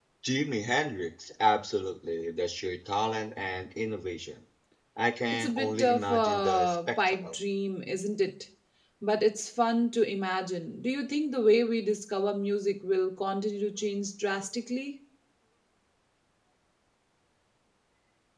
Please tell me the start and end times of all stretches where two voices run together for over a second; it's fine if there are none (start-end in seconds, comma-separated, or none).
5.3-7.4